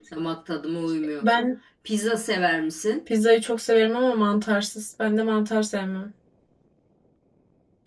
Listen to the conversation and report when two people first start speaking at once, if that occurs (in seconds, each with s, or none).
none